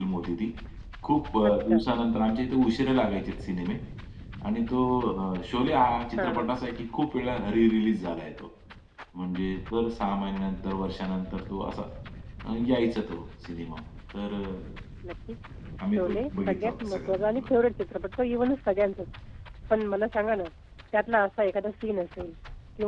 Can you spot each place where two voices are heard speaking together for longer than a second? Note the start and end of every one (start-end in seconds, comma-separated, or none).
15.9-17.4